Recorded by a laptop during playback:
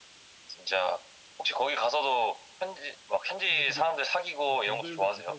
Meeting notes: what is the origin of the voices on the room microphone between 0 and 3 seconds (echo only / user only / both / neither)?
echo only